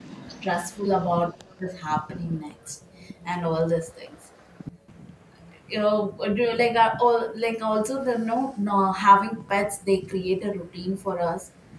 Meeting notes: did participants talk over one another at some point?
No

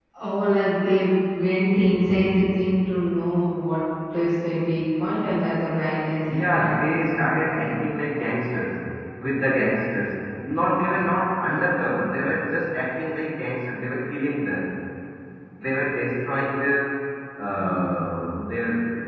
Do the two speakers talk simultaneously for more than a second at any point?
Yes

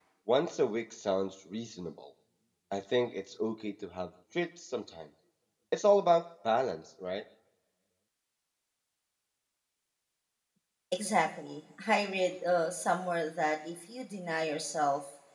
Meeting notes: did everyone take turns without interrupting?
Yes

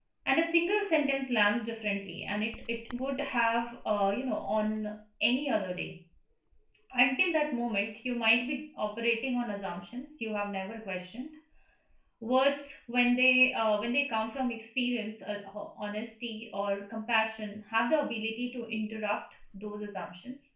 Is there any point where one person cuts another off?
No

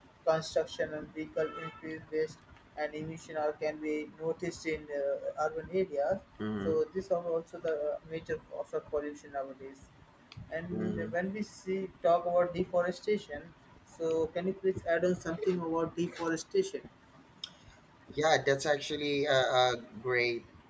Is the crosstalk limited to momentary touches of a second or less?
Yes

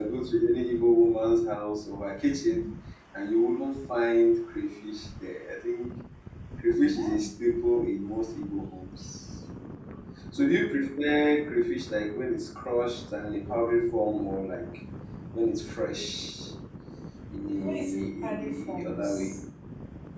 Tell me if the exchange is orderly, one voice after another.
No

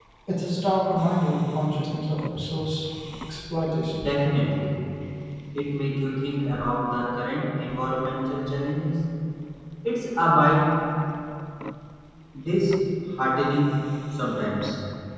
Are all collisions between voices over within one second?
Yes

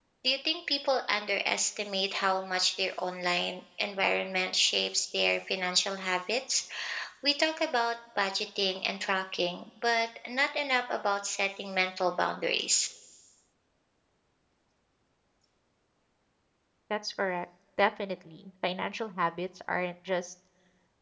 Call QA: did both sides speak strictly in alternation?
Yes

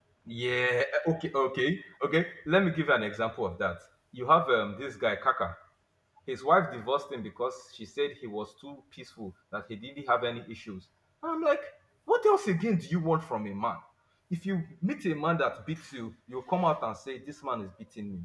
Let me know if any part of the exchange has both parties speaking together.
No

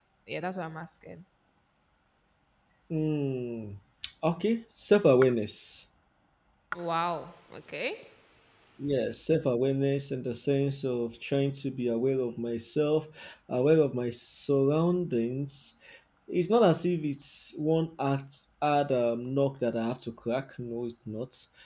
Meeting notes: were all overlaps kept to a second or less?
Yes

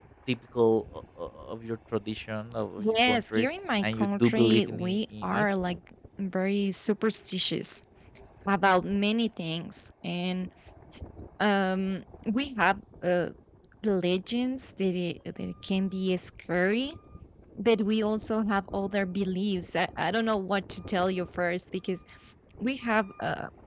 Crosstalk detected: Yes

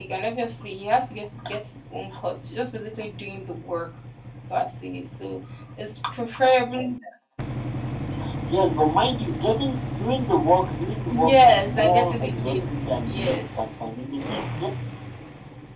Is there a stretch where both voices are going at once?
Yes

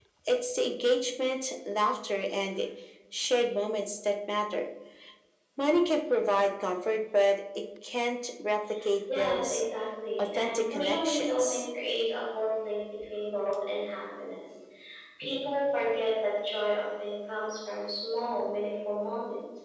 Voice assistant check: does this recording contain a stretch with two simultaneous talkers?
Yes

